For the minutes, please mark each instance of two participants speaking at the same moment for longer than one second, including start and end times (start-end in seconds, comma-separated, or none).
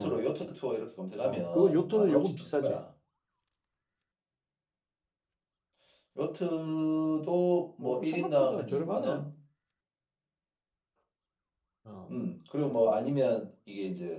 1.2-2.8, 7.8-9.2